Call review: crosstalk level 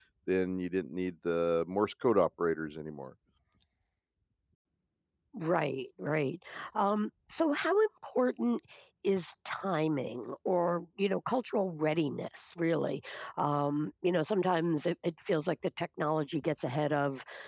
none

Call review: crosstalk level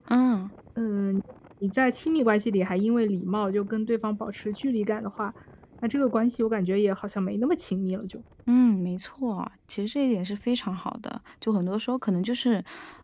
none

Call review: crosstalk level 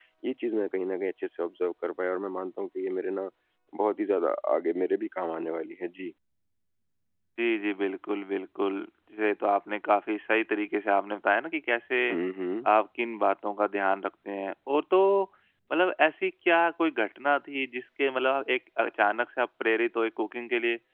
none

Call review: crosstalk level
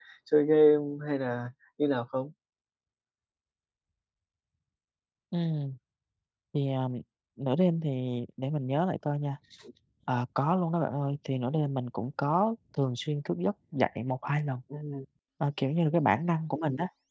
none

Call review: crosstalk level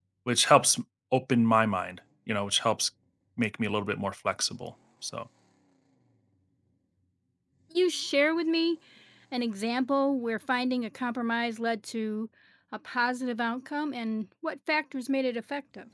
none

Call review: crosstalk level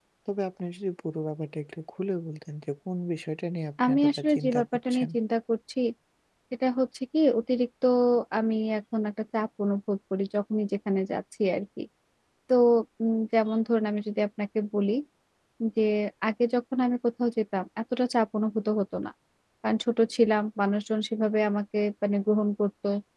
present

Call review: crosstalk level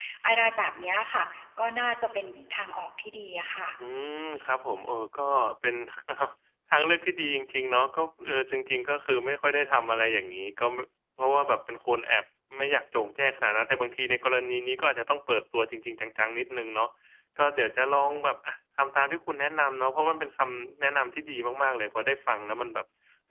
none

